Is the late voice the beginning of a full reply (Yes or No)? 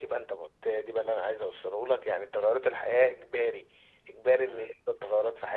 No